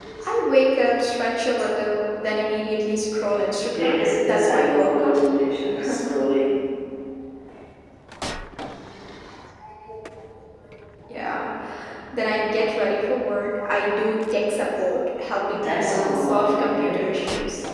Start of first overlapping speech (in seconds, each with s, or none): 3.7 s